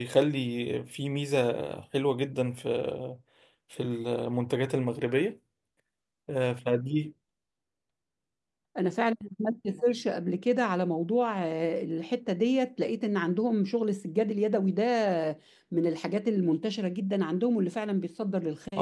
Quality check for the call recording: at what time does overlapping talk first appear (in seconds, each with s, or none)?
none